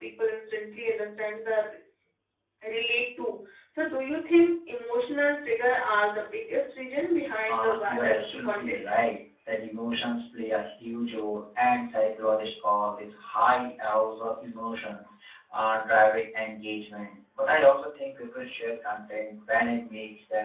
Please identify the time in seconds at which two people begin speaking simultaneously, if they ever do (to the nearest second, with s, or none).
7 s